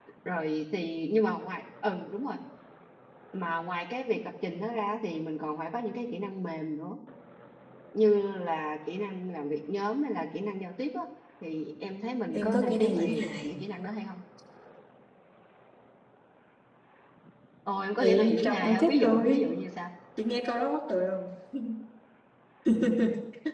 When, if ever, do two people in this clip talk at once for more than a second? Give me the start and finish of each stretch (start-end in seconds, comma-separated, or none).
12.3-13.6, 18.0-19.4